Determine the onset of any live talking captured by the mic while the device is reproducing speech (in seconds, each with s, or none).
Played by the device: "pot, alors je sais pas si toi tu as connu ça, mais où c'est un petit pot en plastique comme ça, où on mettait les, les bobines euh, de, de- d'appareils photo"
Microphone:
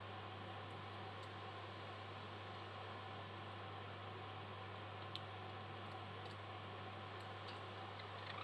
none